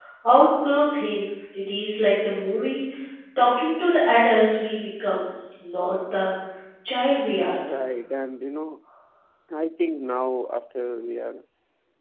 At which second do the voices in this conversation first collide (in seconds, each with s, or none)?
none